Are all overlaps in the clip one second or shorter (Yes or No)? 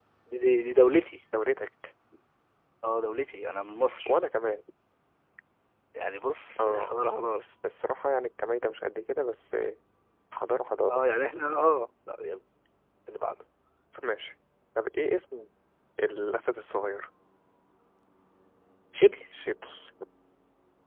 Yes